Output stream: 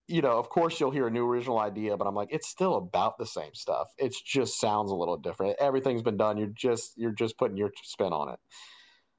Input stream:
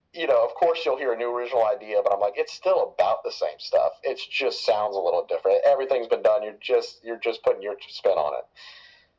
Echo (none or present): present